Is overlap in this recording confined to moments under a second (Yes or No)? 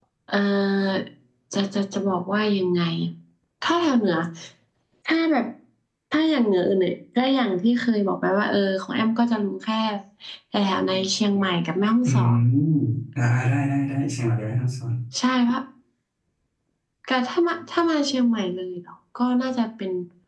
Yes